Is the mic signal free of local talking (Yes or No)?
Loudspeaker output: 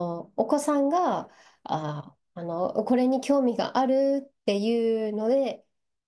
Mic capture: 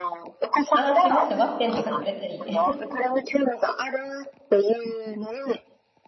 No